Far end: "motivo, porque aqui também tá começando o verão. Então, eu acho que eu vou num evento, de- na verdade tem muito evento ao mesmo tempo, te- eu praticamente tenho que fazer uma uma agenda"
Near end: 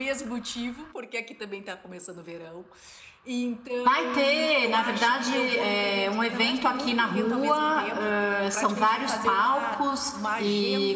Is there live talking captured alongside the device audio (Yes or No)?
Yes